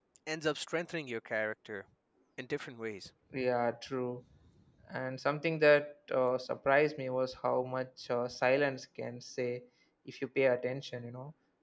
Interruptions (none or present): none